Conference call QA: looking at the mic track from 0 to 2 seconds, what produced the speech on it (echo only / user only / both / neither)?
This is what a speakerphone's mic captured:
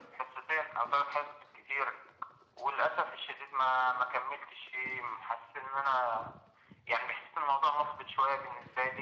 echo only